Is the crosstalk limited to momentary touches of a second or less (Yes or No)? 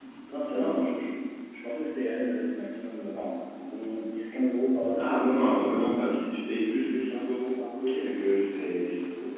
Yes